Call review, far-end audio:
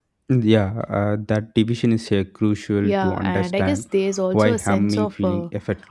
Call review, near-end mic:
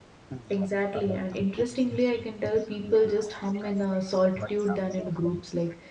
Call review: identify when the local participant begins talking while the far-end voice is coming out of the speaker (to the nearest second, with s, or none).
0 s